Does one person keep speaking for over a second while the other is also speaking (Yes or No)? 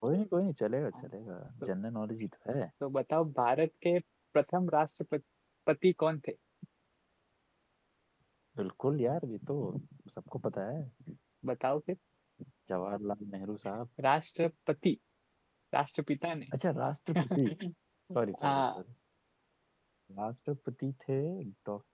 No